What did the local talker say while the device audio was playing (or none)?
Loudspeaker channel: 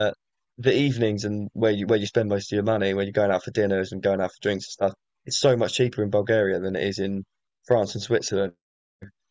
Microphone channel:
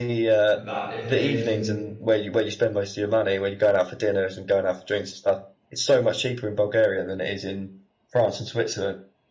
that if they didn't